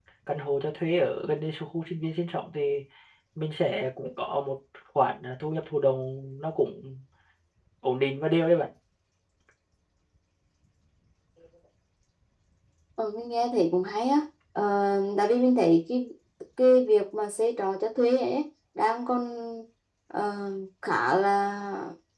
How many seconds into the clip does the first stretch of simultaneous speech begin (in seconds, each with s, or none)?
none